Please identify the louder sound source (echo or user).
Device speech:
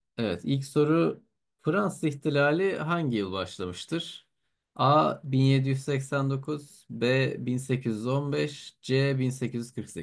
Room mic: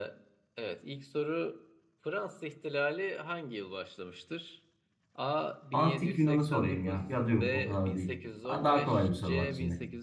user